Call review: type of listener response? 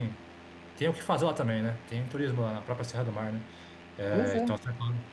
listening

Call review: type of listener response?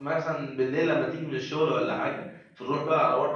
listening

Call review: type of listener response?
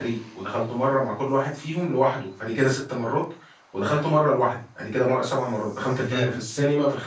listening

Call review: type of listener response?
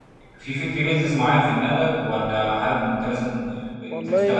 taking over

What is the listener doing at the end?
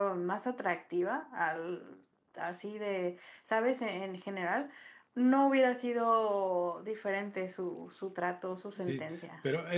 taking over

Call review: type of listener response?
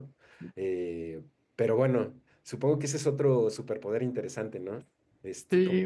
taking over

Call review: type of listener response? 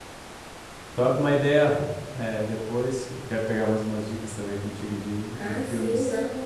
taking over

